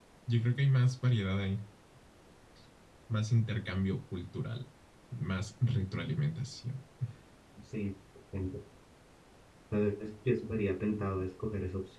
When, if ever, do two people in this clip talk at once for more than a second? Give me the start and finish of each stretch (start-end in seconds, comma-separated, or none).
none